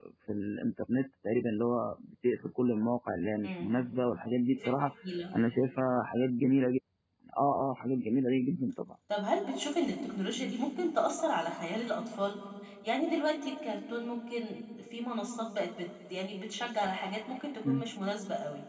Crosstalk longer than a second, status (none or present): none